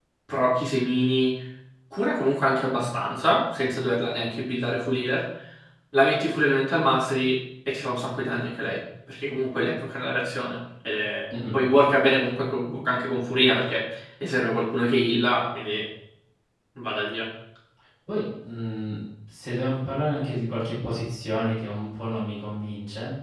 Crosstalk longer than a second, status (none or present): none